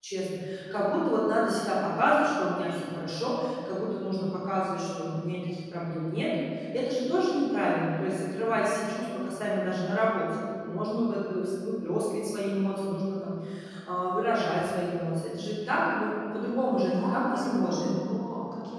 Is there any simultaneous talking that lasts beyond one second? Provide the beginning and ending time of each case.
16.6-17.9

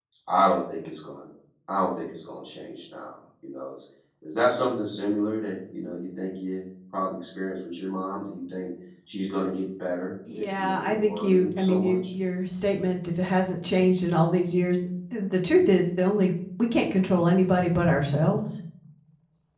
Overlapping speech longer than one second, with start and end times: 10.3-12.0

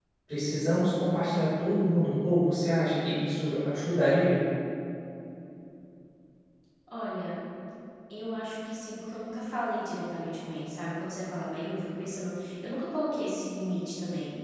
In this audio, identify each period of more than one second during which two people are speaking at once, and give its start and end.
none

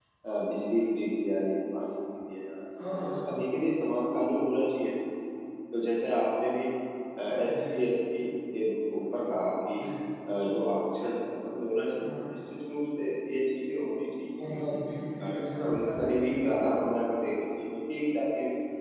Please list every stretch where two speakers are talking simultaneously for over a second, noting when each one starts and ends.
15.3-16.7

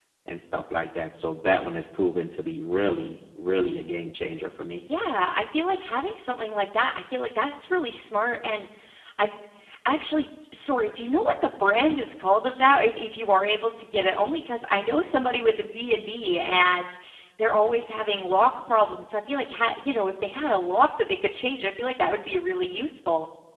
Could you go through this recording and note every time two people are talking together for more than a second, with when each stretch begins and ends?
none

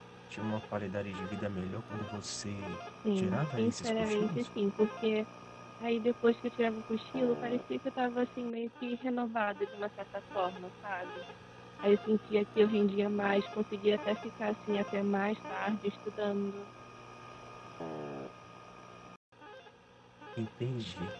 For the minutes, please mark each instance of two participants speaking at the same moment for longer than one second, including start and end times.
3.2-4.5

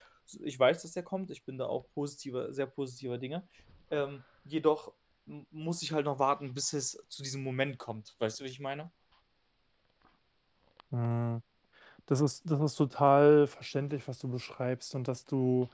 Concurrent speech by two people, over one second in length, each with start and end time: none

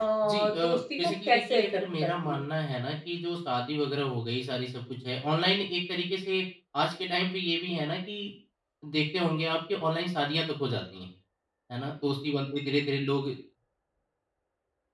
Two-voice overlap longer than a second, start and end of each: 1.0-2.4

